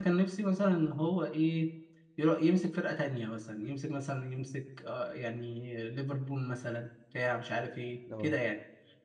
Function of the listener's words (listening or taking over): listening